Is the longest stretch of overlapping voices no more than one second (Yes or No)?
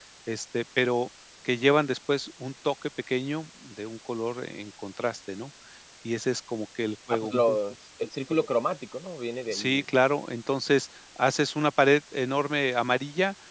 Yes